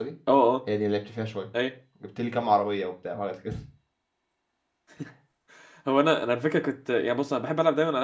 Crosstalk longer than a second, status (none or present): none